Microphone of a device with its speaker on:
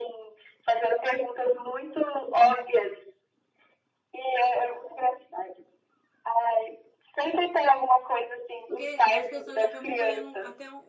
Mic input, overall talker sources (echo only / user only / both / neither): both